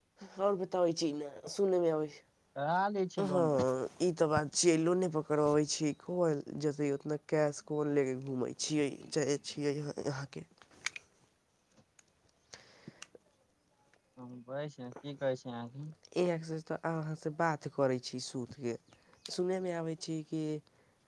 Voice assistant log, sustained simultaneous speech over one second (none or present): none